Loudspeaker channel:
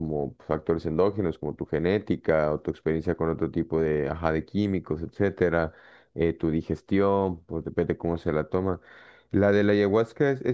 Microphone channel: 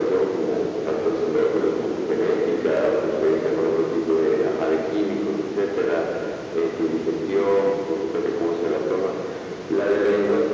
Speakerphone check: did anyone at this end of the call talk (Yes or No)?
No